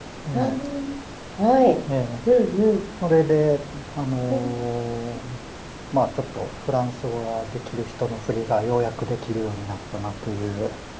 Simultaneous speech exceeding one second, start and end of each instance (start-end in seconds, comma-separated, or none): none